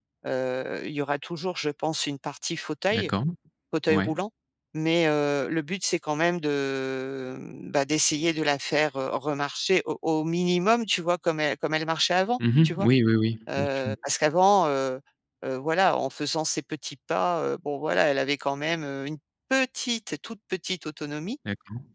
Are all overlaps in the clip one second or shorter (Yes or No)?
Yes